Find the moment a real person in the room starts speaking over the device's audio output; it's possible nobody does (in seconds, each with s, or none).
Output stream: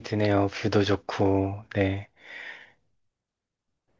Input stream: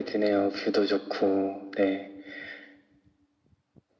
none